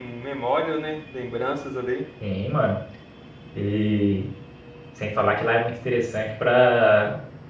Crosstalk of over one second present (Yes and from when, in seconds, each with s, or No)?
No